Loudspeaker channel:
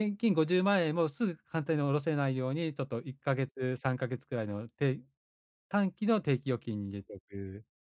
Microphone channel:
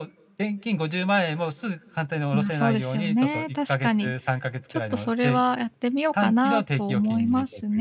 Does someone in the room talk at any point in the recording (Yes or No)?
Yes